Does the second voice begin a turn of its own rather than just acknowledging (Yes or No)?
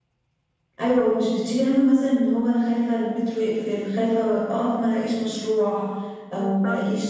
No